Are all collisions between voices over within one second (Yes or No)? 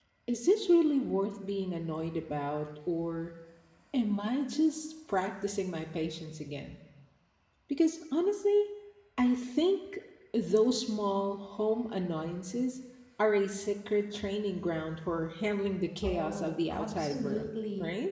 No